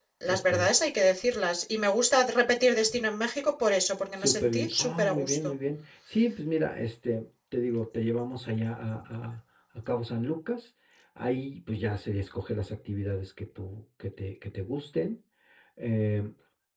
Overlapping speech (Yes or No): Yes